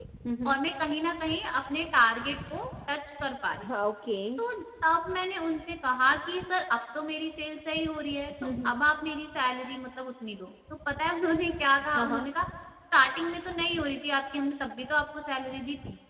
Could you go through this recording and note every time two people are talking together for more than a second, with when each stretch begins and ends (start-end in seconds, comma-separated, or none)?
none